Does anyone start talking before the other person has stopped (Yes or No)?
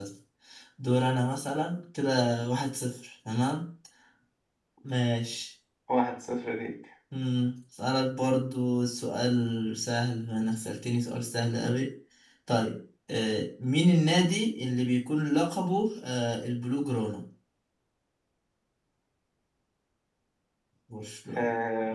No